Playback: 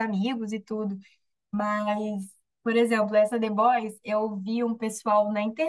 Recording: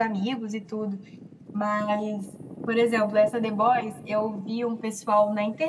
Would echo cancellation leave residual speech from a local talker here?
No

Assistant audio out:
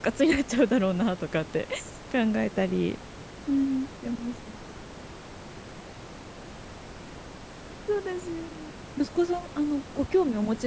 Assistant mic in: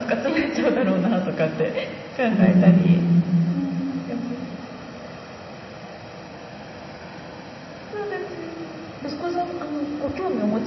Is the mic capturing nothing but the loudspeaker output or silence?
No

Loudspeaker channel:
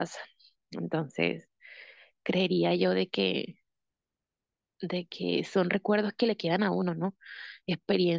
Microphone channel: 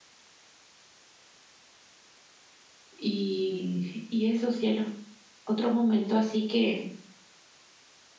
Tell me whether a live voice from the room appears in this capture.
Yes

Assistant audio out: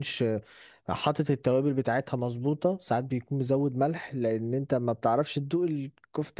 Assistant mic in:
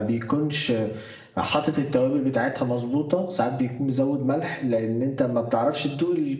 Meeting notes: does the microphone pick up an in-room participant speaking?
No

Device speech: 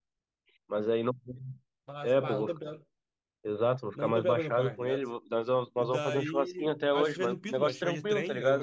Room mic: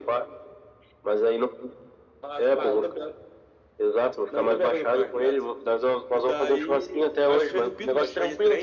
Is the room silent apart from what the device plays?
Yes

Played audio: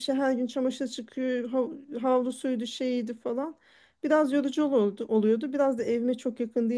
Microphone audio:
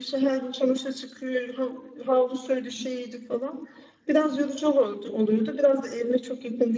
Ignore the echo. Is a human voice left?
No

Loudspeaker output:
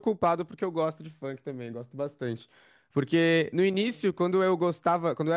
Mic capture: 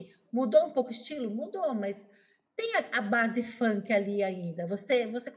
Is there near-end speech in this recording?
Yes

